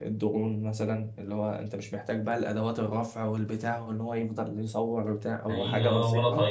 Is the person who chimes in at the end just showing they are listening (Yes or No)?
No